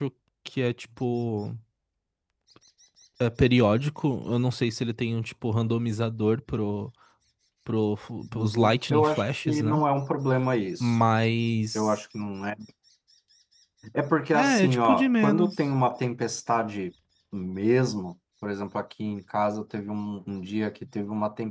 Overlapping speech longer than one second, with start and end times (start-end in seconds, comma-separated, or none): 8.3-9.8, 14.3-15.6